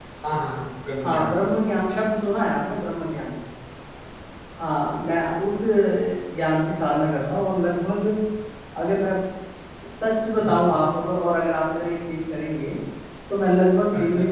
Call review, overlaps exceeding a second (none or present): none